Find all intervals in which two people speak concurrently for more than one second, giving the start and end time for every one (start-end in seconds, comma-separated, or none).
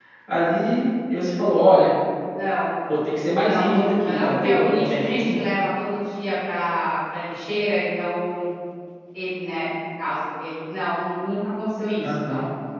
3.4-5.5